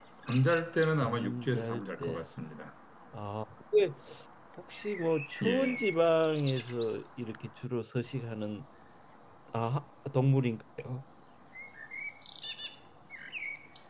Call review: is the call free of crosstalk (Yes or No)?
No